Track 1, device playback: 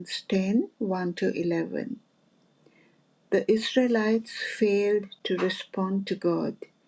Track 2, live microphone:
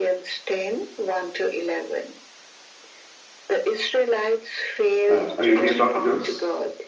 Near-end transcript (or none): Um, are you here, Dr. Jose?